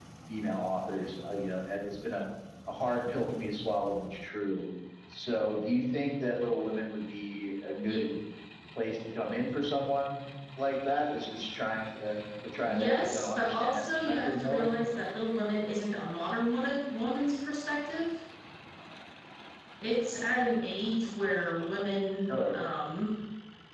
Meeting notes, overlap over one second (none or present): present